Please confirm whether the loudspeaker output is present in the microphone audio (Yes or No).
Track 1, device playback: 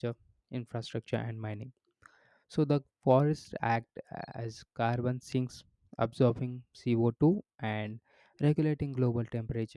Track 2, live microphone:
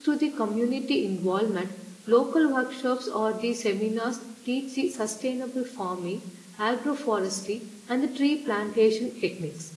No